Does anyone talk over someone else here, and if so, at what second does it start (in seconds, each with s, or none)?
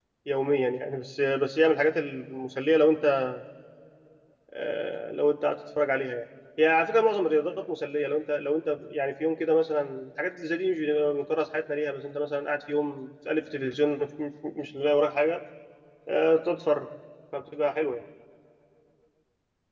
none